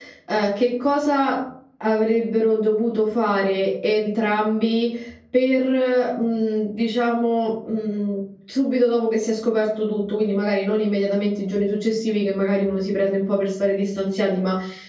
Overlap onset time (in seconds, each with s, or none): none